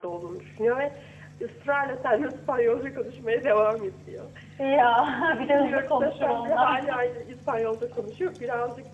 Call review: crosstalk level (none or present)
present